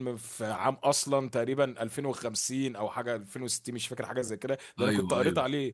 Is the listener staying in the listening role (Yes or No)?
Yes